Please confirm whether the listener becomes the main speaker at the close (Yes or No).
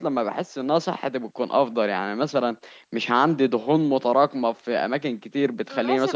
Yes